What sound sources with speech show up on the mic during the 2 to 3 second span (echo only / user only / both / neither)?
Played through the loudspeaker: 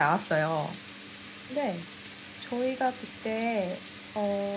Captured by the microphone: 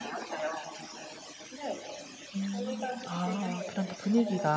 both